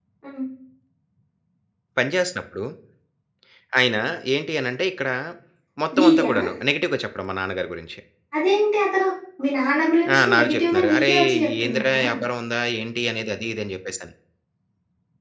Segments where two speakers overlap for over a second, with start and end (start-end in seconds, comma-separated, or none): 10.2-12.0